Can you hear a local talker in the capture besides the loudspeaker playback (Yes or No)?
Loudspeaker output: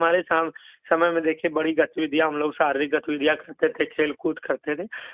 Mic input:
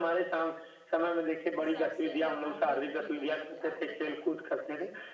Yes